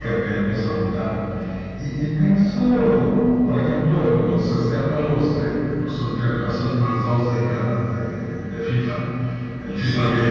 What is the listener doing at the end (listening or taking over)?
listening